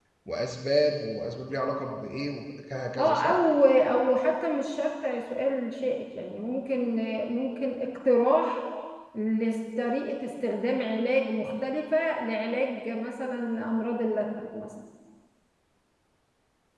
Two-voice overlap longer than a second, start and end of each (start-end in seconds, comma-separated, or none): none